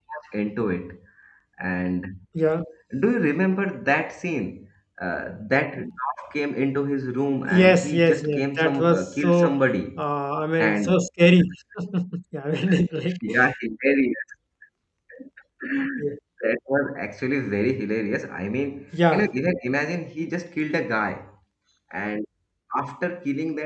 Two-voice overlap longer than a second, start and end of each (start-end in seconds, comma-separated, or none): 7.5-9.6